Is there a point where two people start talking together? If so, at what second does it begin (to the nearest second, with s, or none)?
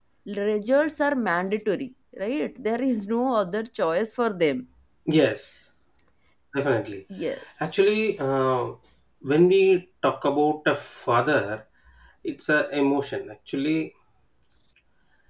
none